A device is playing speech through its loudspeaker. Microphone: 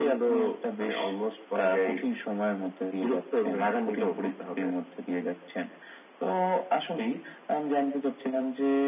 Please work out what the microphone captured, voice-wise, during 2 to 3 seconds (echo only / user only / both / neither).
echo only